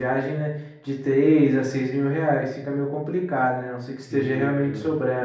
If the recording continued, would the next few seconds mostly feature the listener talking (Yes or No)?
No